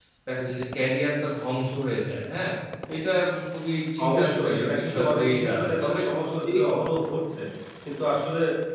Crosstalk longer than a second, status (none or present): present